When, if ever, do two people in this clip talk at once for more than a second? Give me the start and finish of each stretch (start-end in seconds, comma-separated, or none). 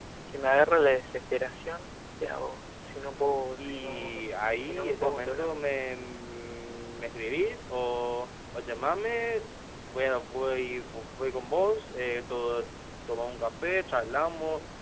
3.6-5.6